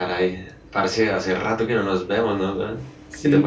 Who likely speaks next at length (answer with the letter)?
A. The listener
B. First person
B